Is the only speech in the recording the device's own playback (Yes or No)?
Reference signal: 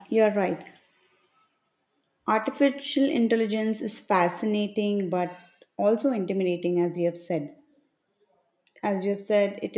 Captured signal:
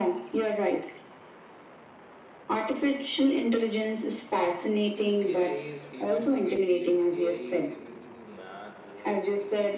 No